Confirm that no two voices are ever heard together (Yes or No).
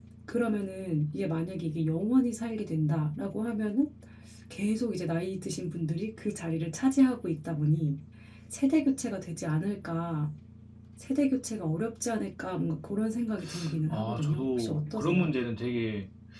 No